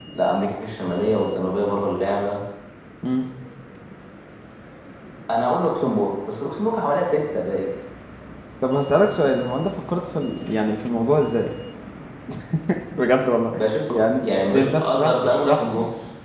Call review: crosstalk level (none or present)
present